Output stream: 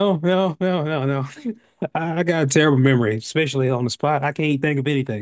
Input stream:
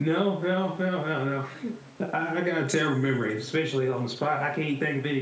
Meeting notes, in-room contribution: none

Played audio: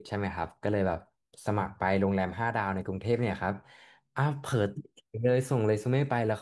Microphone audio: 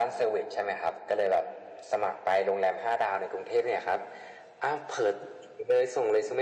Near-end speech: none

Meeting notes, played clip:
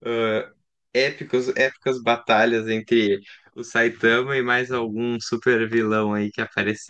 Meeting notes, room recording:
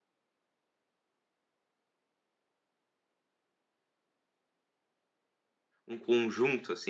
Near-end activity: present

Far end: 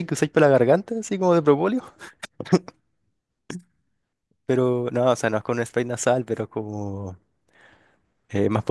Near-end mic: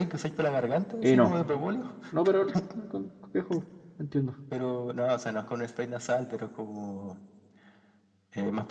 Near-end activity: present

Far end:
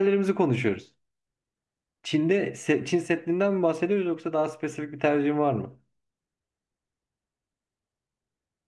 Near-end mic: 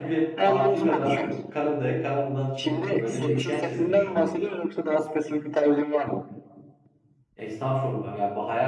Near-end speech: present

